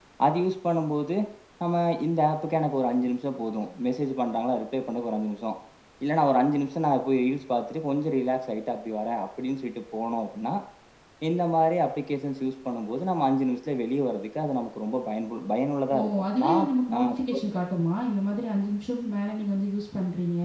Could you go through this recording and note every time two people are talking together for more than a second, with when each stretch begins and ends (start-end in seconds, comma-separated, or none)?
16.0-17.4